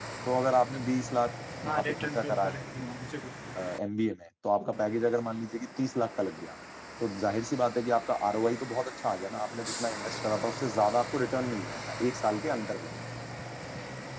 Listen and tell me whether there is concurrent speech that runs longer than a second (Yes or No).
Yes